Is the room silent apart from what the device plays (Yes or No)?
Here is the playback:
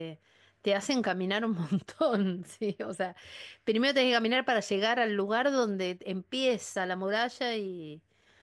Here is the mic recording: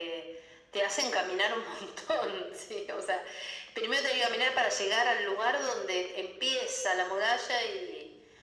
Yes